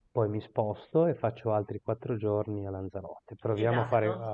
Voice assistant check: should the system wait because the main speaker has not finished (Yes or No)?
No